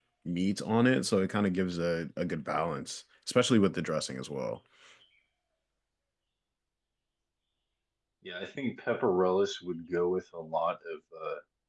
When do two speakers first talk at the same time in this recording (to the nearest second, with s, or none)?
none